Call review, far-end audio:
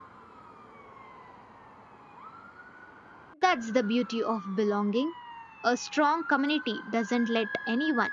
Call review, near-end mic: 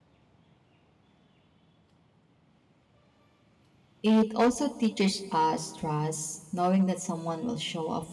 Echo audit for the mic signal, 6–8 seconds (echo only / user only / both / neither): user only